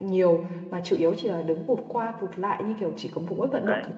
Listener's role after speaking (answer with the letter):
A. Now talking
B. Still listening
A